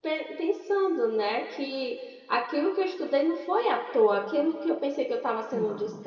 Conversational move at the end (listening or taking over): listening